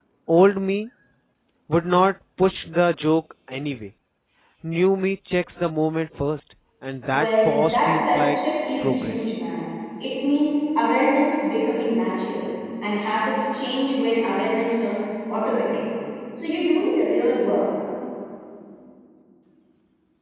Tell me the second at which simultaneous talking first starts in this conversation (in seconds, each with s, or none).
7.1 s